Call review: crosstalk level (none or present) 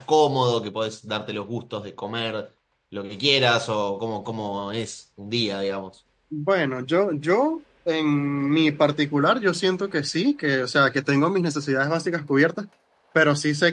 none